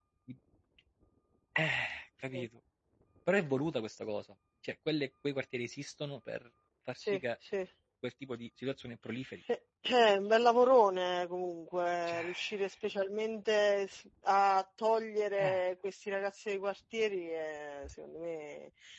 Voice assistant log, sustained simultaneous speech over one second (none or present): none